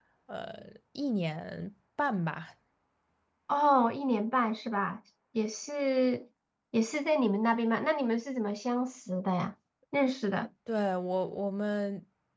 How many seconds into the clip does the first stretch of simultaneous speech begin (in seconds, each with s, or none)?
none